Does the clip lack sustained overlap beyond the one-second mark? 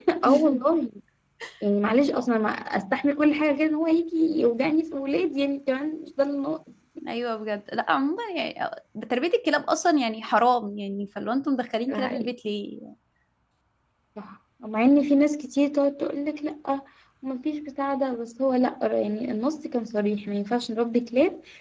Yes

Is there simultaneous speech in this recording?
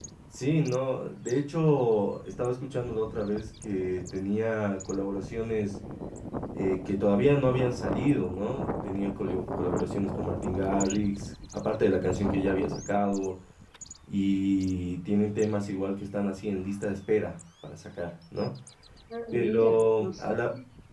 Yes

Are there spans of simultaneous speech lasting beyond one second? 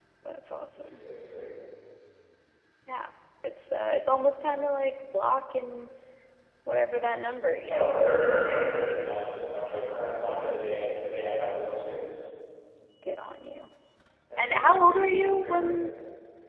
Yes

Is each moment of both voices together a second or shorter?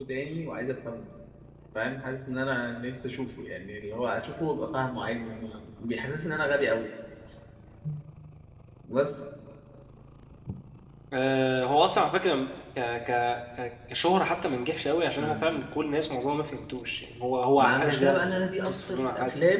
No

